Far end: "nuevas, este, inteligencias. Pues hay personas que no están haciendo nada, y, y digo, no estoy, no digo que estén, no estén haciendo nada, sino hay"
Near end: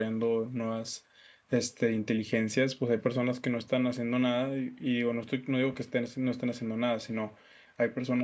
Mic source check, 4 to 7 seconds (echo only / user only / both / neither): echo only